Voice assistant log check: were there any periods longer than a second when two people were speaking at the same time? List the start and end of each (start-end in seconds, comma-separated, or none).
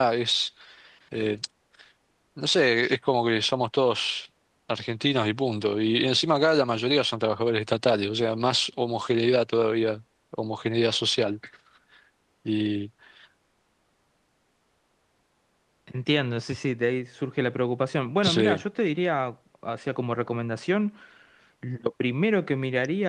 none